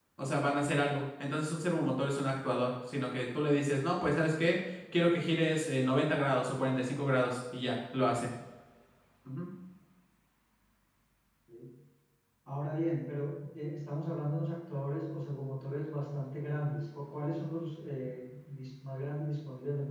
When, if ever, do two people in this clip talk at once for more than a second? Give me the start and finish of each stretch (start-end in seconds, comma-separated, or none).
none